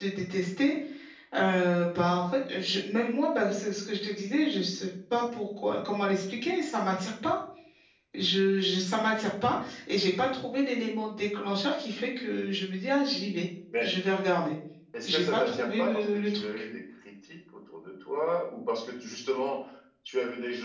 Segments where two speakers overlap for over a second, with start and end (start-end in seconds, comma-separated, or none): 15.0-16.4